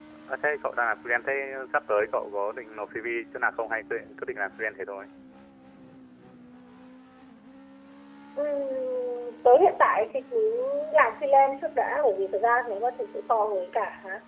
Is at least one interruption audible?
No

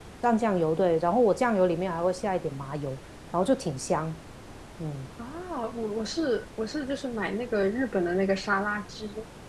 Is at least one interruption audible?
No

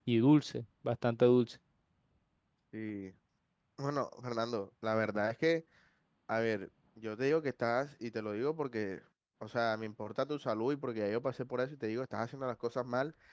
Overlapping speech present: No

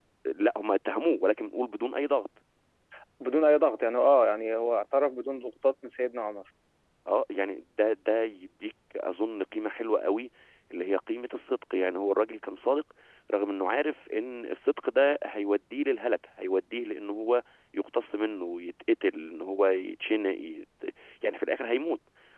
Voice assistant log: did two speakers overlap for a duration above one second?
No

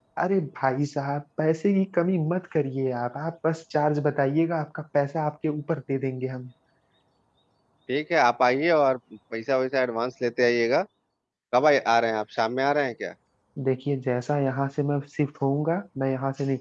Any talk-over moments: No

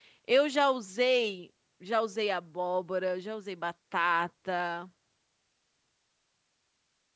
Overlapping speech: No

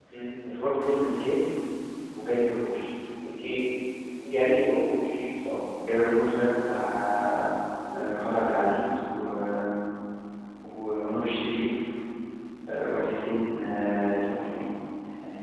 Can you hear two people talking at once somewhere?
No

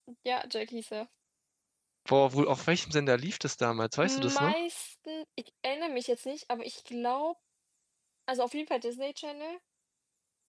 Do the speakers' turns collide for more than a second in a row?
No

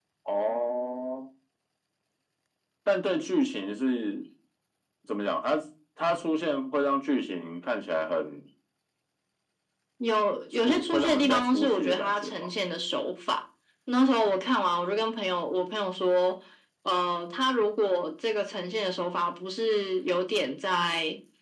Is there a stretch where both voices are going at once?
Yes, from 10.7 s

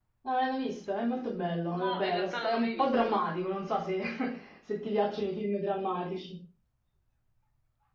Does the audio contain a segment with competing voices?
Yes, from 1.7 s

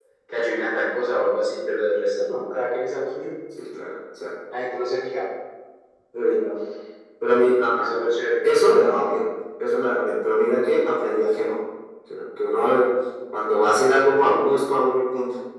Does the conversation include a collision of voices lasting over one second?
No

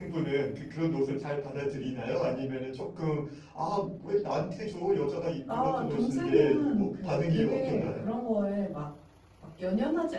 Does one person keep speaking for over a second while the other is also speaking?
Yes, from 5.5 s

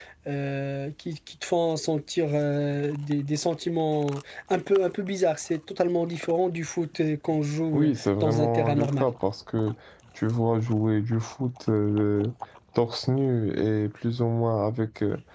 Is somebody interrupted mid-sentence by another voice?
Yes, from 7.7 s

